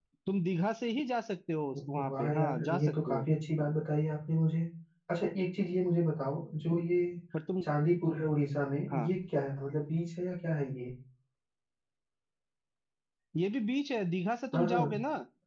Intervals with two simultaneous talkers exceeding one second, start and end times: 1.9-3.2

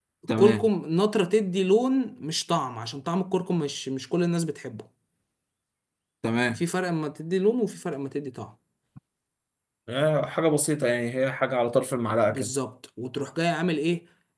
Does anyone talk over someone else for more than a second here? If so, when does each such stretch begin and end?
none

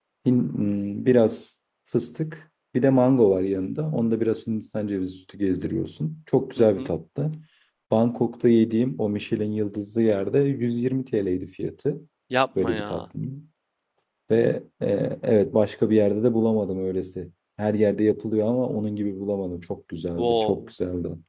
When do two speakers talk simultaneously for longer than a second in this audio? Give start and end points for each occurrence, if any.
none

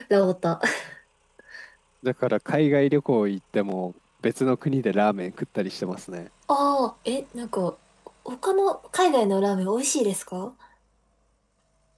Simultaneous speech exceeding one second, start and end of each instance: none

